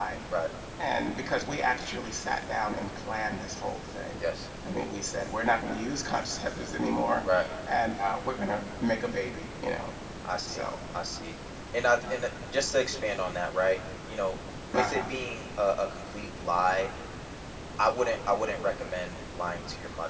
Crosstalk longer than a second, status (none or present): none